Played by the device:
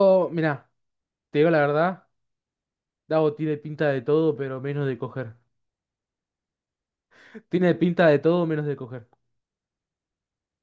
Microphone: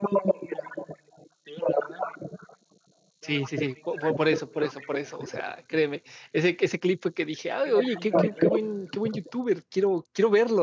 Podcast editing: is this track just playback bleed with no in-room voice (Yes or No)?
No